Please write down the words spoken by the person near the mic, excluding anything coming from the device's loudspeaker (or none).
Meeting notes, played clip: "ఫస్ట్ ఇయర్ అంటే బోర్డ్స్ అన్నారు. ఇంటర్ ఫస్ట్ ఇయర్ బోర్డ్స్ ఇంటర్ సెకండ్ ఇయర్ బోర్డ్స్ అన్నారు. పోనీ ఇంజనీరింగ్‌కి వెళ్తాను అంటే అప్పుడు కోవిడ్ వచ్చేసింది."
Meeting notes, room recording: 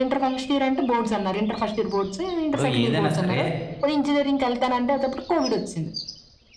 ఇప్పుడు ఏదైనా సరే